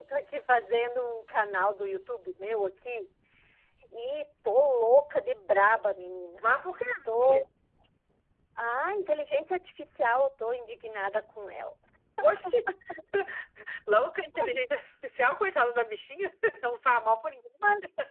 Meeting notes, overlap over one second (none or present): none